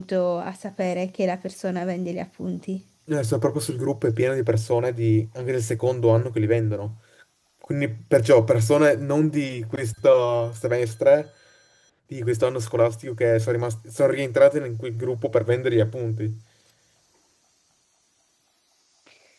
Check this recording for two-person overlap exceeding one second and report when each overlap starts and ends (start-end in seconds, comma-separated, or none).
none